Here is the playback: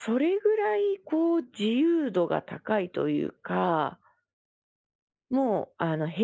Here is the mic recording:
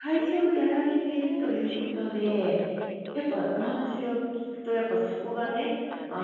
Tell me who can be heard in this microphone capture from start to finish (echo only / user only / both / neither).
both